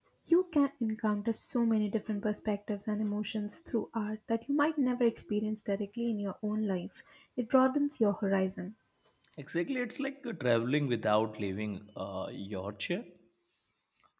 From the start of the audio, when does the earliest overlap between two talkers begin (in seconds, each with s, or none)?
none